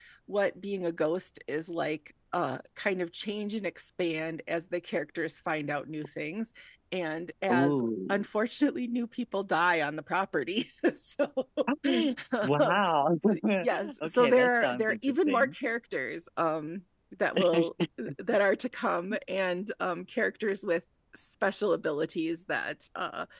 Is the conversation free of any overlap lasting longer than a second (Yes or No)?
No